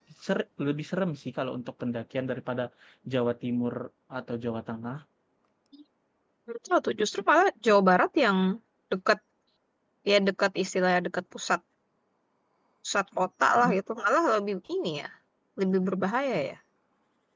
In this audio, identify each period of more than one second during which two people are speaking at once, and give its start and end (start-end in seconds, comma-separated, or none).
none